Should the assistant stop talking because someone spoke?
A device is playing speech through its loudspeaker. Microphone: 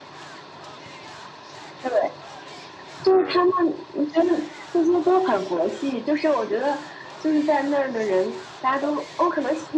Yes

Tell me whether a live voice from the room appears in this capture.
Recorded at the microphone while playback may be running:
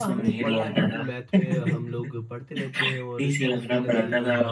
Yes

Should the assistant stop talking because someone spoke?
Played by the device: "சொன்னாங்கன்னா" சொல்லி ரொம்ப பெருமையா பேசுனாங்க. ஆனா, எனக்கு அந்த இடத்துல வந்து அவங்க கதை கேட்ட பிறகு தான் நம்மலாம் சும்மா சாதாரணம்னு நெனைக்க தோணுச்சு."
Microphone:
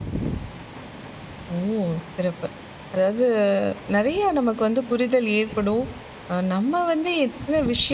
Yes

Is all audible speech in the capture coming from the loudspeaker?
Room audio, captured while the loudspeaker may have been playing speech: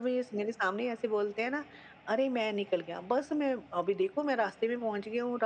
Yes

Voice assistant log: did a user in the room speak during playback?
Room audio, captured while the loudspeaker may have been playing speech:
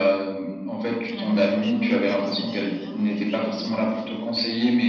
Yes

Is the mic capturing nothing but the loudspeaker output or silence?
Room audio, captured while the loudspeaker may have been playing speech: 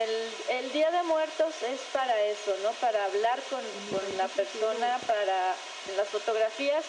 No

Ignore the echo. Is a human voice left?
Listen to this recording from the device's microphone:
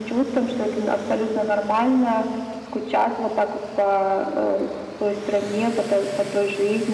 No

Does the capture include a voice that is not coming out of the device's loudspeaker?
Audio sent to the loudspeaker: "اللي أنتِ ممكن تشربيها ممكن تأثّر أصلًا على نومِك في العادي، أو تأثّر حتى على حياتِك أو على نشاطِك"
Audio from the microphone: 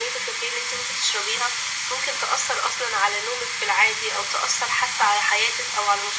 No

